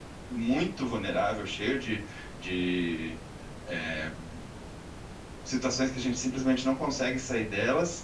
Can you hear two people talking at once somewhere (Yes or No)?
No